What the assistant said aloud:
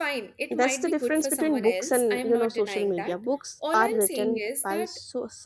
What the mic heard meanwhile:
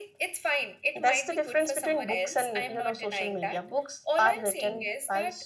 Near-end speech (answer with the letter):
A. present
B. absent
B